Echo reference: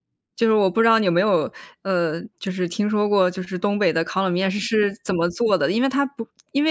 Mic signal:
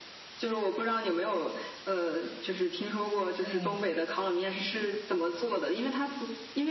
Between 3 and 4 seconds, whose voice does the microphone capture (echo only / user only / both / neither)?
both